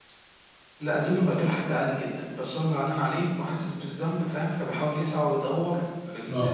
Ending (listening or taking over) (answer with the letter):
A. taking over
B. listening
B